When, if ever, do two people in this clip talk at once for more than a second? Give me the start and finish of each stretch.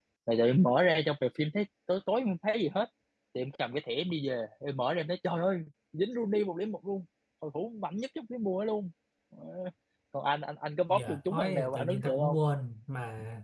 10.9-12.4

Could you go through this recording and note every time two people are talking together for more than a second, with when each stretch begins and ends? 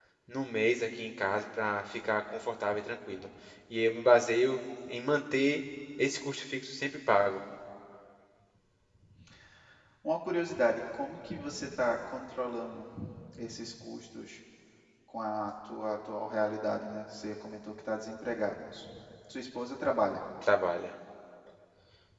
none

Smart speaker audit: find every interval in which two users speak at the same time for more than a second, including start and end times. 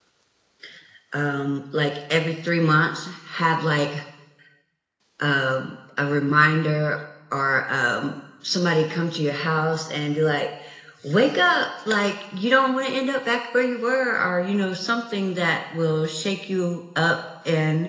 none

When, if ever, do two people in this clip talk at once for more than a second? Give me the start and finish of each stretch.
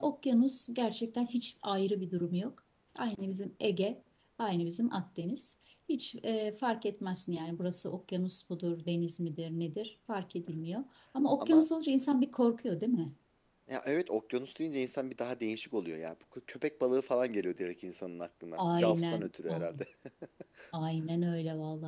18.6-19.8

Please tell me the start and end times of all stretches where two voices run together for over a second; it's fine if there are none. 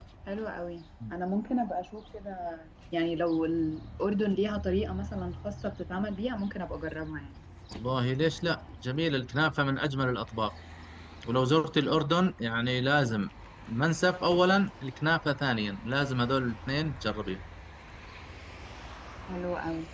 none

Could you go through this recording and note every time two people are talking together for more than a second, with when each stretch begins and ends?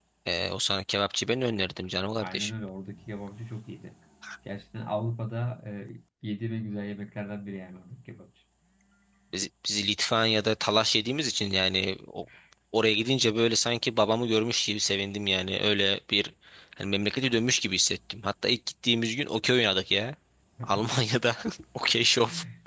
none

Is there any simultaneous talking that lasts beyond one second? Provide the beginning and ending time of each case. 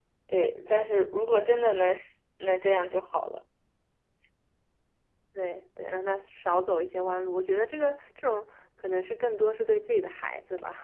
none

